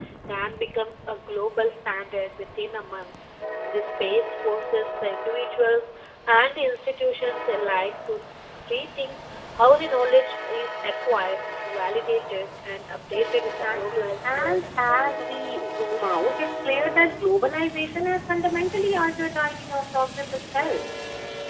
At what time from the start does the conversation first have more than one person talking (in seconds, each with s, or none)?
13.4 s